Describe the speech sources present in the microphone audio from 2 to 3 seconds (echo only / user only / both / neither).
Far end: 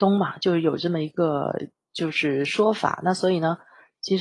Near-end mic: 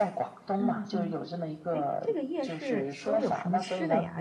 both